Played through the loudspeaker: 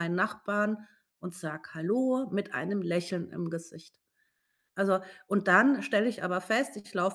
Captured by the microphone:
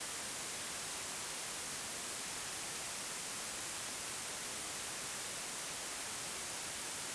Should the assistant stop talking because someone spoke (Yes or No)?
No